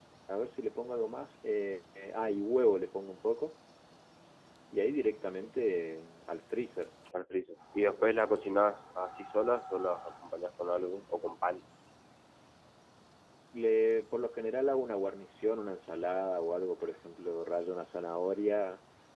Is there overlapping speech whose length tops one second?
No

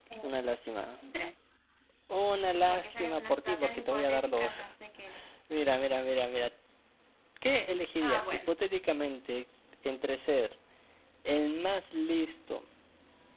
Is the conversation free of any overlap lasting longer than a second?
No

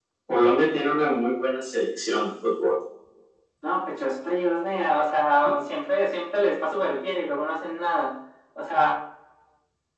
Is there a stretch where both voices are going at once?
No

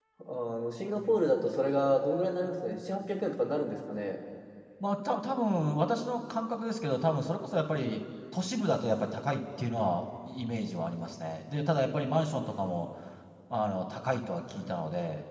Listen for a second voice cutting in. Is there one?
No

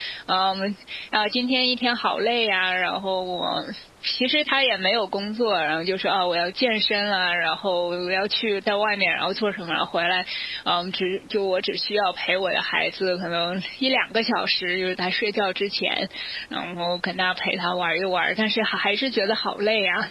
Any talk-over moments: No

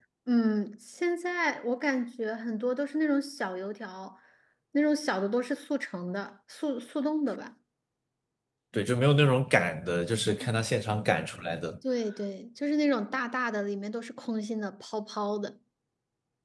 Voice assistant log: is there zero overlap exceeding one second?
Yes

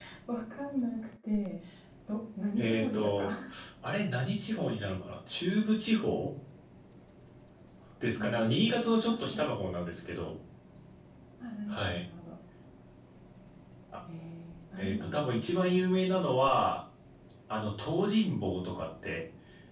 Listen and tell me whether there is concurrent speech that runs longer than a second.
Yes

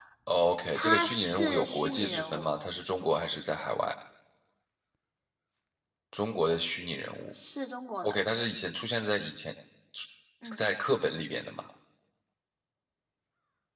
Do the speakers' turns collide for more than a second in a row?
Yes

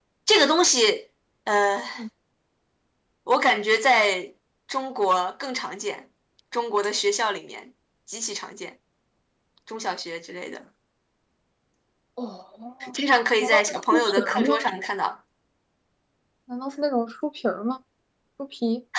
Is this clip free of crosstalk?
No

